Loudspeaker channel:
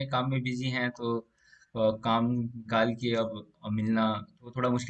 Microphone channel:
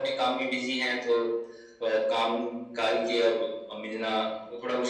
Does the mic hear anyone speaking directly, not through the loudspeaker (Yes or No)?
No